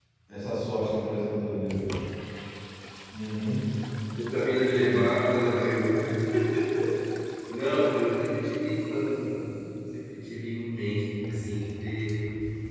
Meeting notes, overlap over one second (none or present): none